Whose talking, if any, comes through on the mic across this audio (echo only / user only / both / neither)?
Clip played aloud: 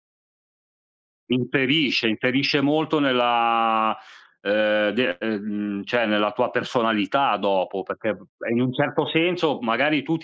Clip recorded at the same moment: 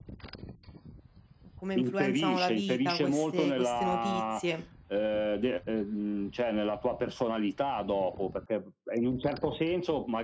both